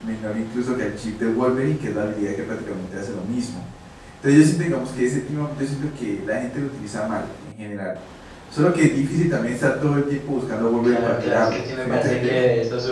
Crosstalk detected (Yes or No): Yes